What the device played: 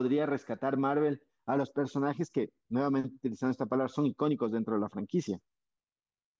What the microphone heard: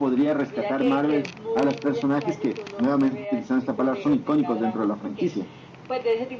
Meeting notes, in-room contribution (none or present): present